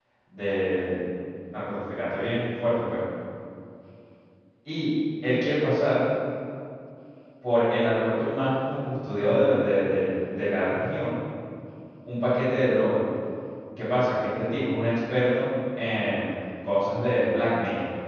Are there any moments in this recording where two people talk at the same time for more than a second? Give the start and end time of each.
none

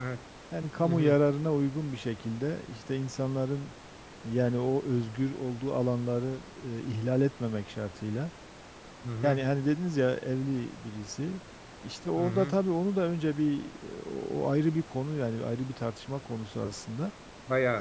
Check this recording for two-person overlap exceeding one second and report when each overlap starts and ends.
none

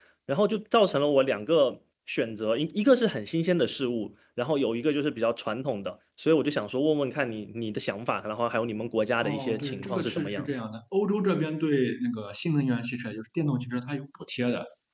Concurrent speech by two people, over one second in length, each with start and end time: 9.2-10.5

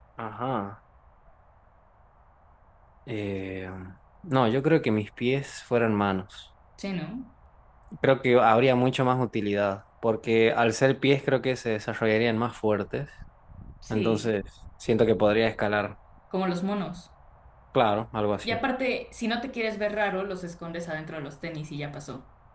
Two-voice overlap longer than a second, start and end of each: none

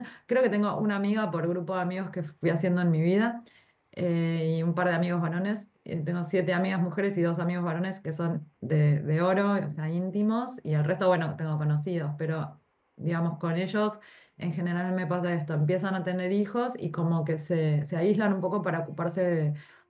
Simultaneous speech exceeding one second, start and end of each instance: none

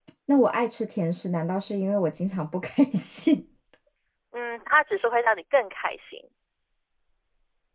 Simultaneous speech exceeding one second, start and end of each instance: none

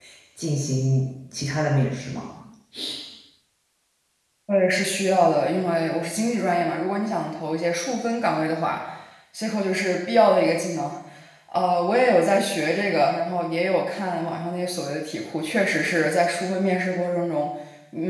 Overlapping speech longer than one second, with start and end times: none

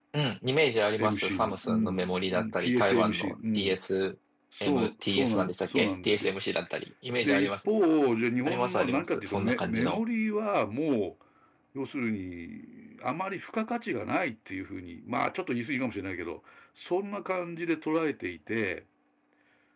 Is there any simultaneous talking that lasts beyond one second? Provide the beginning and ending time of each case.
1.0-3.8, 4.6-6.3, 8.4-10.0

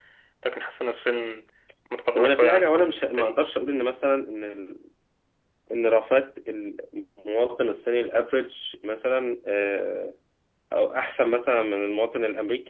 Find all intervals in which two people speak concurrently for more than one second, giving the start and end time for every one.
2.2-3.4

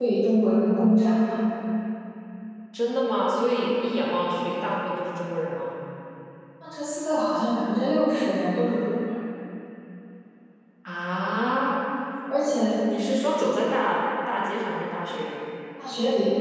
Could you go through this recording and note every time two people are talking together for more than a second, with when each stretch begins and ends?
none

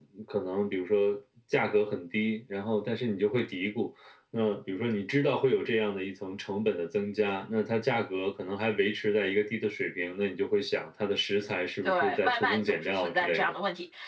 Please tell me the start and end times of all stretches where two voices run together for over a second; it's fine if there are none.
11.8-13.5

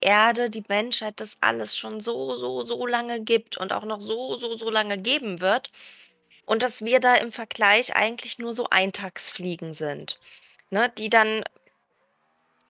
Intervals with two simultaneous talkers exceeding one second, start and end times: none

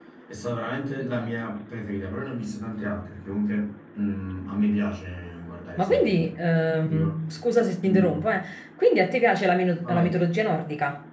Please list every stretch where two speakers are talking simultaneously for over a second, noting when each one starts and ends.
none

